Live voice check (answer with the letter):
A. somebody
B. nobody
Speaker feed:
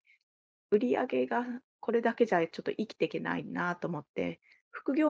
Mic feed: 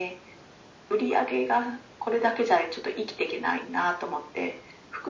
B